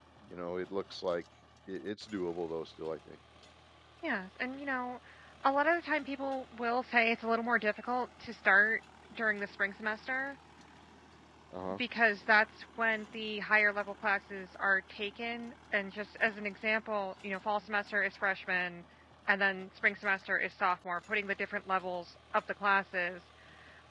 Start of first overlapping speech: none

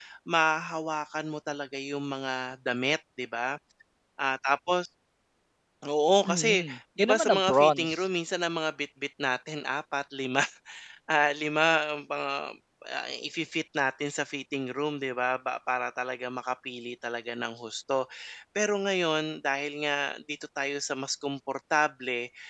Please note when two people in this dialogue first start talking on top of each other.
6.3 s

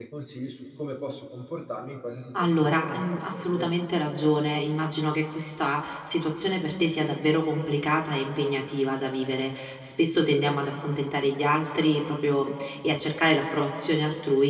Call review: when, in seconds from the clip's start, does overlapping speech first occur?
2.3 s

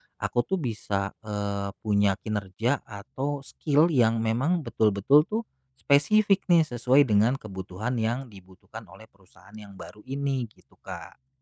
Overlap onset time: none

